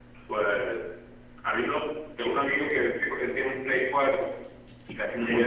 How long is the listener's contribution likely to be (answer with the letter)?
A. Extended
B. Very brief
B